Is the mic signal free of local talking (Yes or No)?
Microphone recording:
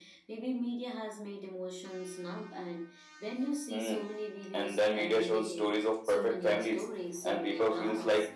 Yes